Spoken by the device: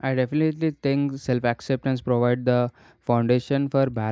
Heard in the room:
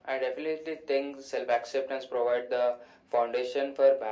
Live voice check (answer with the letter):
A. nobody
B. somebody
A